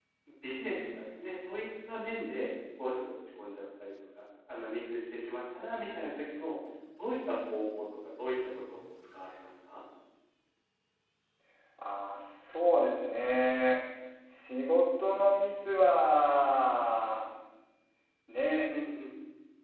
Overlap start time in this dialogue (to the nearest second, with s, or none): none